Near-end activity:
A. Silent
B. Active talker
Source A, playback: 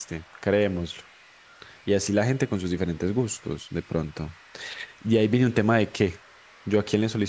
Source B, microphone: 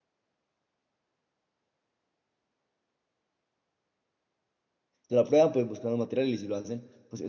B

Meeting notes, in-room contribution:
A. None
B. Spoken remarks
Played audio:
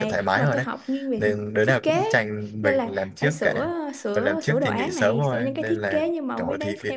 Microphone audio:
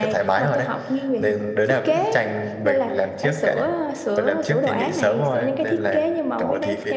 A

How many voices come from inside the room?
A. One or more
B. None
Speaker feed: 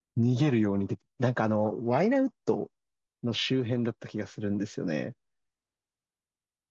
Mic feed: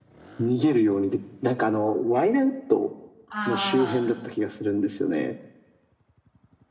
A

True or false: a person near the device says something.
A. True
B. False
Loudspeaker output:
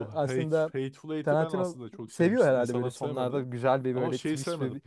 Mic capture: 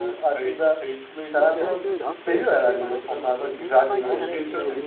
A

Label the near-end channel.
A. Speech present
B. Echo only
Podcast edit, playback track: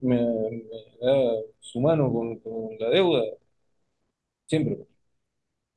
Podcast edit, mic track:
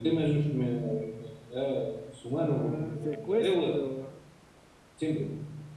A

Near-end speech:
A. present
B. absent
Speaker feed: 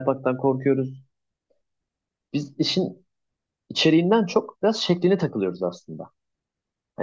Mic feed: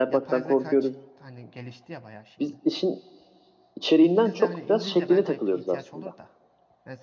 A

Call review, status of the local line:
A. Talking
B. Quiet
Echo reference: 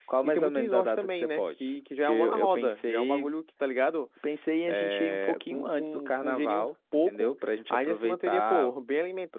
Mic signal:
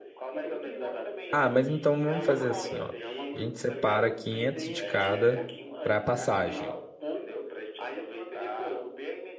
A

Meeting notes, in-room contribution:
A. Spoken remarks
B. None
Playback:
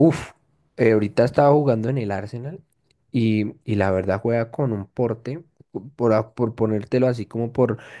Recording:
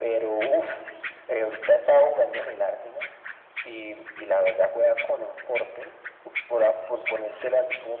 B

